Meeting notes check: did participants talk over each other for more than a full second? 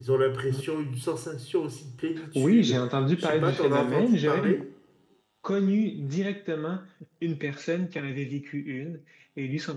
Yes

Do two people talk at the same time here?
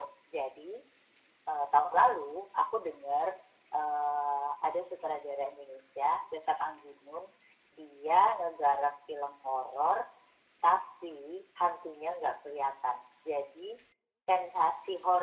No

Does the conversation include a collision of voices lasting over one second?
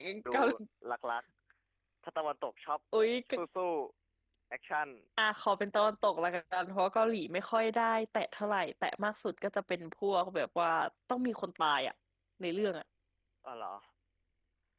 No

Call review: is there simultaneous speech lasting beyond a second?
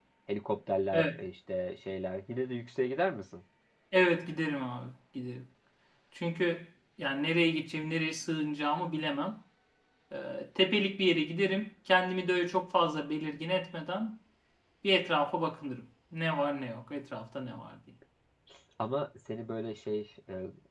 No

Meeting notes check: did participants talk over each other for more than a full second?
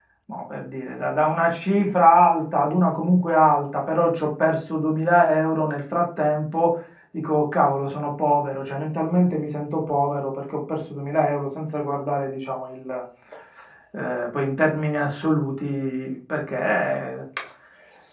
No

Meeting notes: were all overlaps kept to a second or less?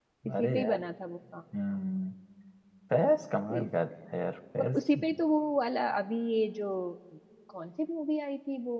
Yes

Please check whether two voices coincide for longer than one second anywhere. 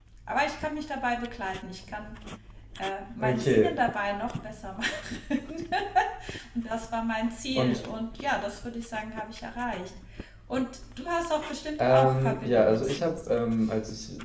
Yes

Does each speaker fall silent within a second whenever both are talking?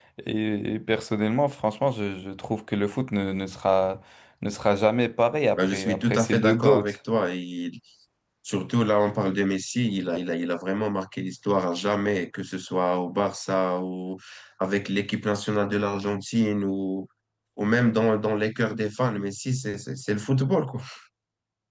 No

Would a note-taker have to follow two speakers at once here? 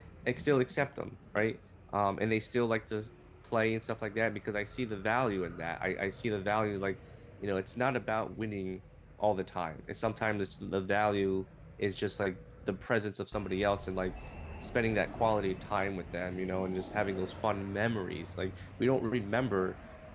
No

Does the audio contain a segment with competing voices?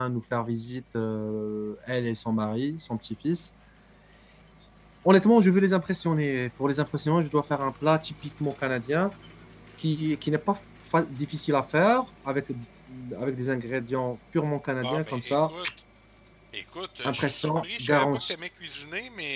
Yes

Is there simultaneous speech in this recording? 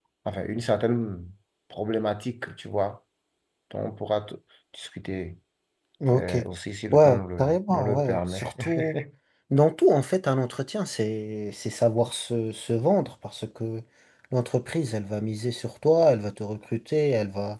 Yes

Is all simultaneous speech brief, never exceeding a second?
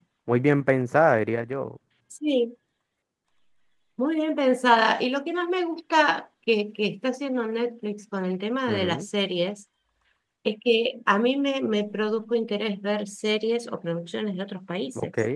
Yes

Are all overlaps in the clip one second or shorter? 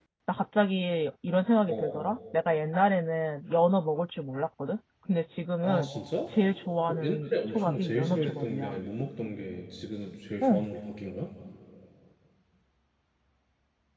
No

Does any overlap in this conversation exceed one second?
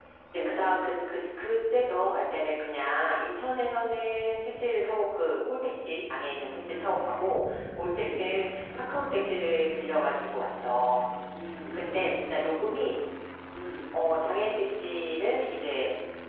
No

